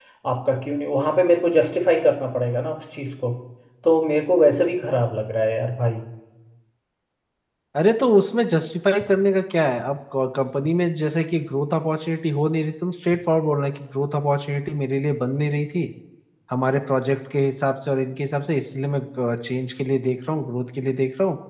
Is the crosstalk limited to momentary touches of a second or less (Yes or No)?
Yes